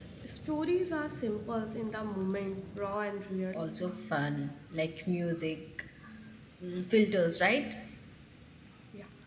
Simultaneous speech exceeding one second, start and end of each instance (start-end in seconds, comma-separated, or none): none